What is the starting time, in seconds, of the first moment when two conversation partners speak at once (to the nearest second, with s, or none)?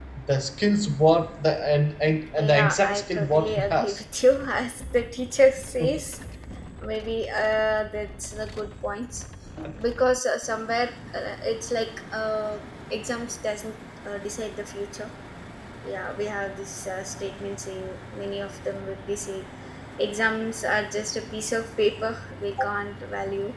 2 s